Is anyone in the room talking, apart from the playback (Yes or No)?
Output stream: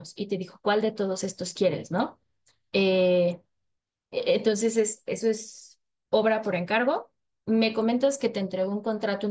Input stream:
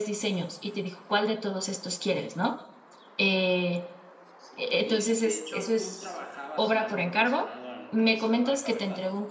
Yes